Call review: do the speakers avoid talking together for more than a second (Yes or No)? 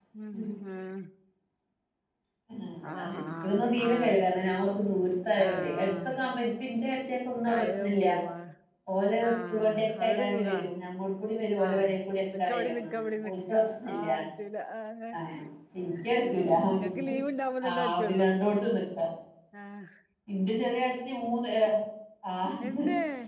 No